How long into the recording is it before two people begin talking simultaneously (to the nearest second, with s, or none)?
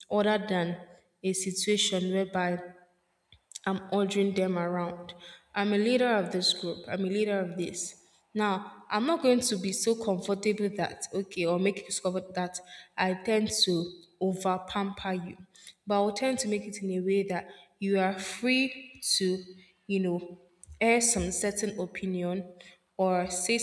none